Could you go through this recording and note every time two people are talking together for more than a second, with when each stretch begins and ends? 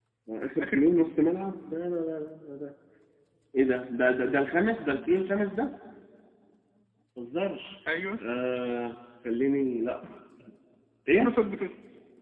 none

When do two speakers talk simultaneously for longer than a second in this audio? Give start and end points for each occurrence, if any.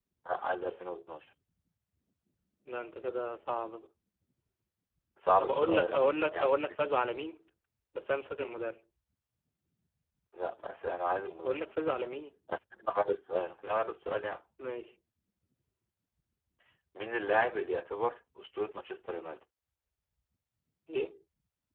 5.4-6.8

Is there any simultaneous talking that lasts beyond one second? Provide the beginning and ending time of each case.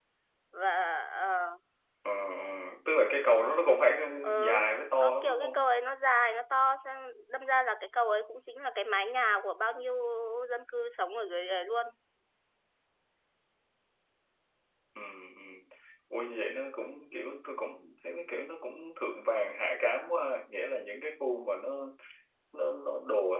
4.4-5.6

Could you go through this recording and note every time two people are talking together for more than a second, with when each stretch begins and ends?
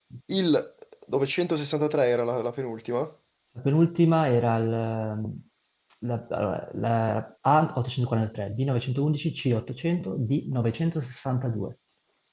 none

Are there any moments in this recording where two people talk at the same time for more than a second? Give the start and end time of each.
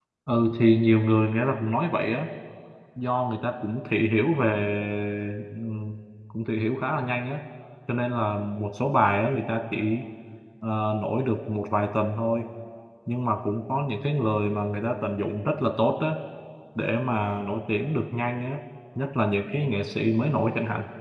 none

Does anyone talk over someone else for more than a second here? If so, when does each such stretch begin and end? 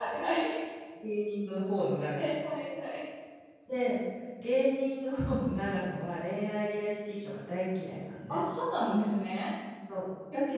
none

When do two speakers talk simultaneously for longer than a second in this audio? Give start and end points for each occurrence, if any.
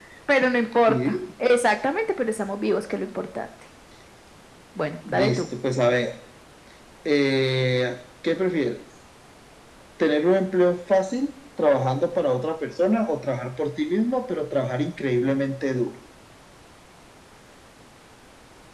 none

